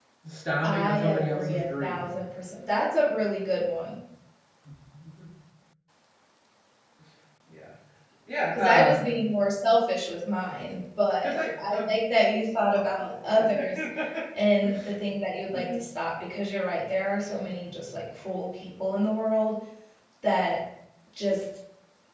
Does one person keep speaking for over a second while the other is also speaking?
Yes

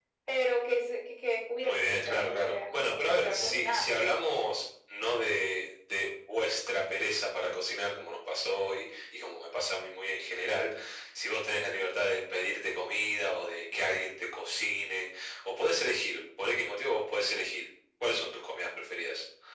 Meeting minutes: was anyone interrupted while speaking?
Yes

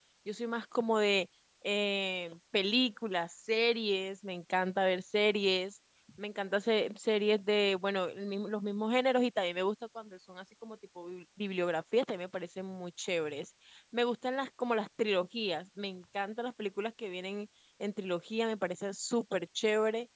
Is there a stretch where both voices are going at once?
No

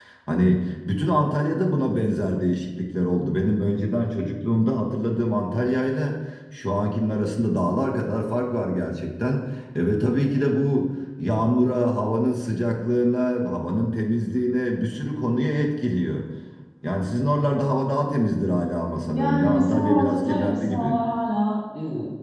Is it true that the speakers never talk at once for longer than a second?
No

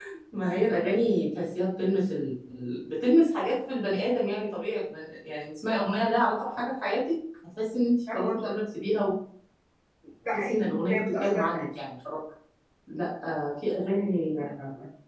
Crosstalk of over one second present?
Yes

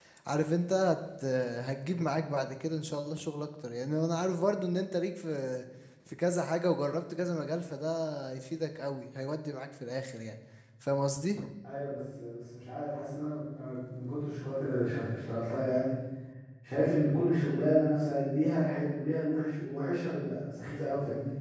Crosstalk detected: No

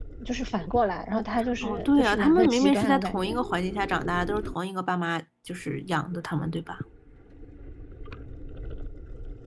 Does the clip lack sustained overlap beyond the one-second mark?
No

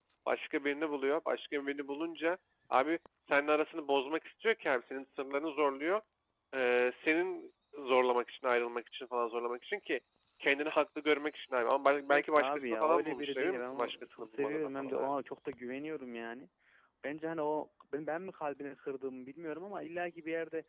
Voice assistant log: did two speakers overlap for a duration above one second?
Yes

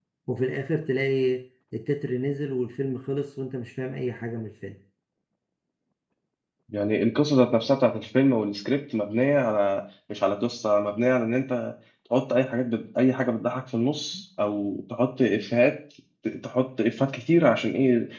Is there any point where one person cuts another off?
No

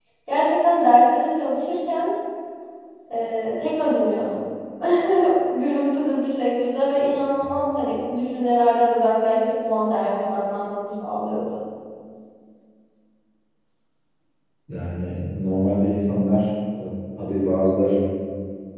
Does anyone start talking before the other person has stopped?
No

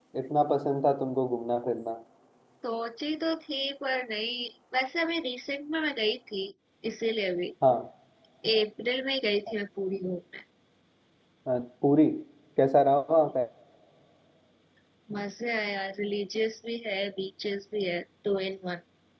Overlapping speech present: No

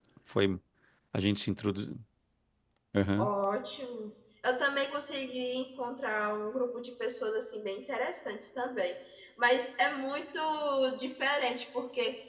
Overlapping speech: No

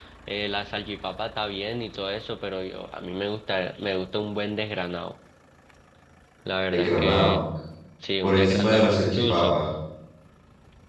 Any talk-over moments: Yes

